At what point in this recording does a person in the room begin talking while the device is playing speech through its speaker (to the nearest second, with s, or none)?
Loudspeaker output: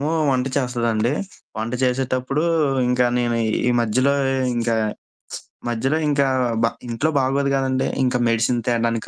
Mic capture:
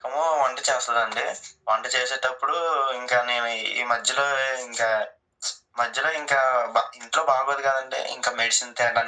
none